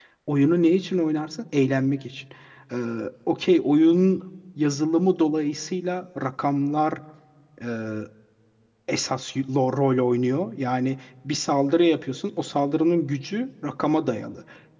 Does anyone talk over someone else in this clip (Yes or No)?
No